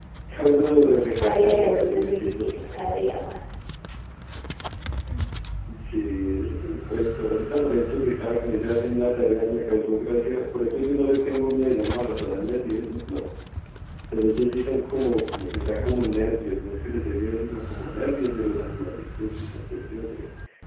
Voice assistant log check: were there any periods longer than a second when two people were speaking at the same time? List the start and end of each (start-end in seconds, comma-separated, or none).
0.9-2.5